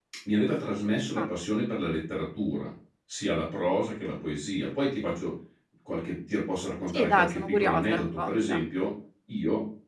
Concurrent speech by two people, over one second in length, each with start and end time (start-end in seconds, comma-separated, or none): 6.9-8.6